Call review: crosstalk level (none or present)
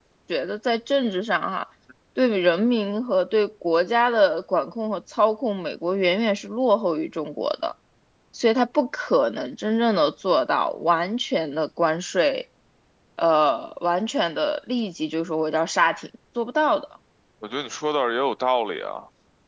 none